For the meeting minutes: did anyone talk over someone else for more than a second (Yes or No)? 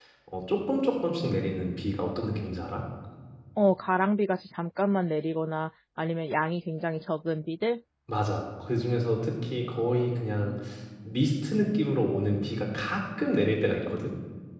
No